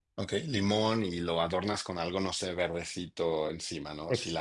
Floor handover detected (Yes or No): Yes